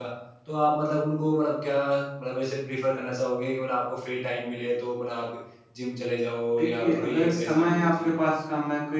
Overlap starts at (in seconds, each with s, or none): 6.6 s